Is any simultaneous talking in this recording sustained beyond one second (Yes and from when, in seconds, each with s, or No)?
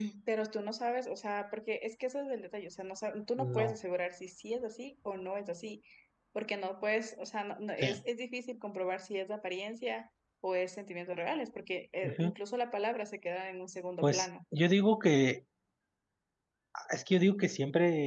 No